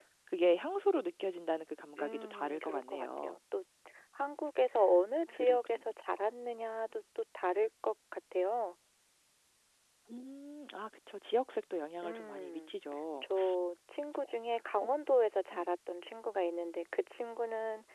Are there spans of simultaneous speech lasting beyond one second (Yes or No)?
Yes